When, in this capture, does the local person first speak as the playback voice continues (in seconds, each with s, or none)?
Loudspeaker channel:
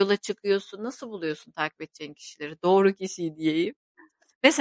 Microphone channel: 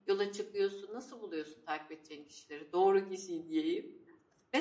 none